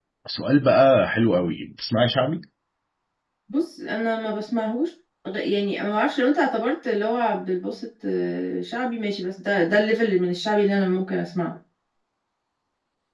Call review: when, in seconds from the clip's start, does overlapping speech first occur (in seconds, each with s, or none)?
none